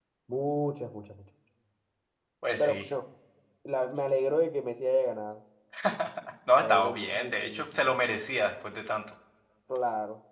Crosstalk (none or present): present